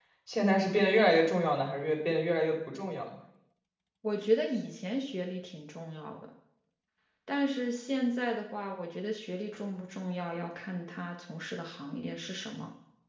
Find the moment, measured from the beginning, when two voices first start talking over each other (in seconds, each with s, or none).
none